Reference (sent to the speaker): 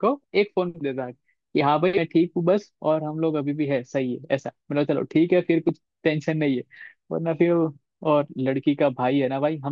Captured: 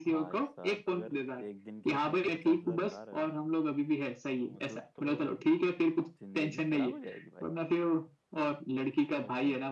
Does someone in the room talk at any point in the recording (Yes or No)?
Yes